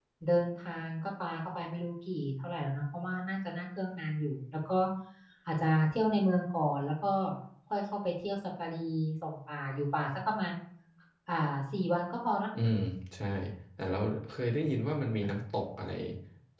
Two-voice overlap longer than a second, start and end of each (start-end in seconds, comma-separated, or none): none